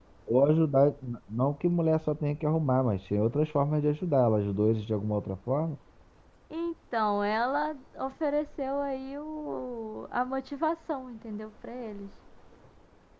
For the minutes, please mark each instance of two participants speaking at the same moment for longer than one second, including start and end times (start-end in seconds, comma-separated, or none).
none